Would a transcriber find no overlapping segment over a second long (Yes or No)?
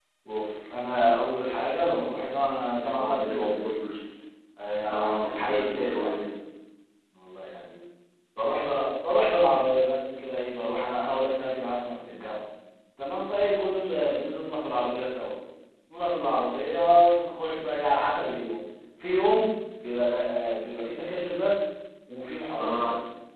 No